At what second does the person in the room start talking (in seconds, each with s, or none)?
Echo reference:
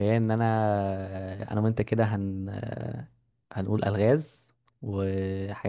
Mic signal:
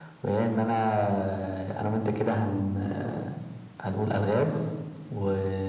none